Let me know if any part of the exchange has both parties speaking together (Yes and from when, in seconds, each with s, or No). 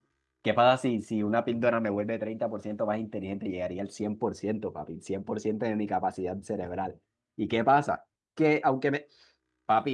No